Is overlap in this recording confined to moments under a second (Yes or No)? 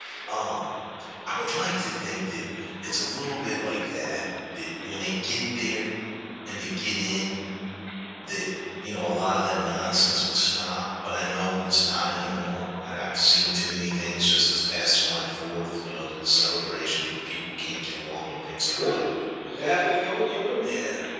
Yes